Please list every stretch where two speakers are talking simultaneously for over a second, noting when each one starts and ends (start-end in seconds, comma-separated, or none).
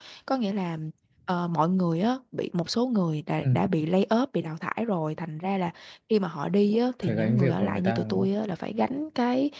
7.0-8.3